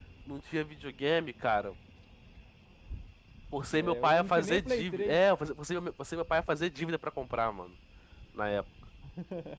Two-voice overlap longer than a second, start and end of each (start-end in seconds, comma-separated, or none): 3.8-5.2